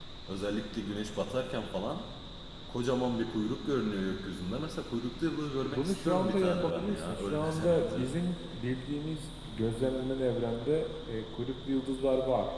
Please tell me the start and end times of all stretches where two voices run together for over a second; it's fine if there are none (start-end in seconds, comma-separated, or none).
5.7-8.1